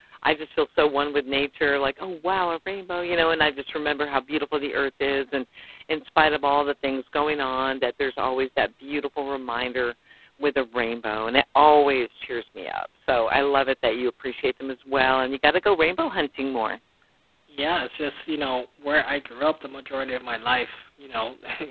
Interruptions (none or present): none